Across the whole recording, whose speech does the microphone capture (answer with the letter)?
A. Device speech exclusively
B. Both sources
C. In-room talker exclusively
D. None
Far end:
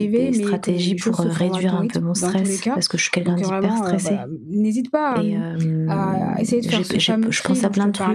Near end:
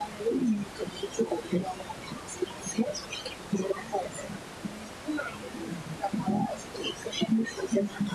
A